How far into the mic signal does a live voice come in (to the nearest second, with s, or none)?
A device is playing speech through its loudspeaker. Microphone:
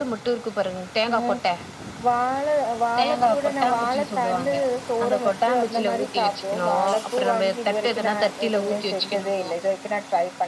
none